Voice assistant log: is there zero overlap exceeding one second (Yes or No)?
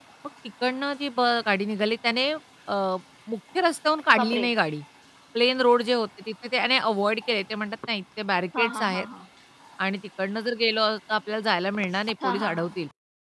Yes